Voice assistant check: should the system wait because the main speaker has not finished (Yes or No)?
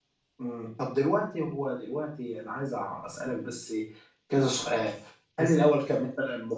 Yes